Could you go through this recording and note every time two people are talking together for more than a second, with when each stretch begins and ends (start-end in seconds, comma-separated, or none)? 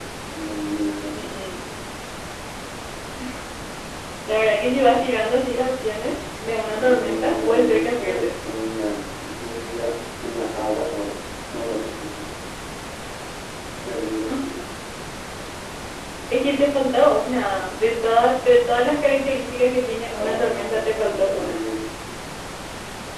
6.8-8.3, 20.2-21.6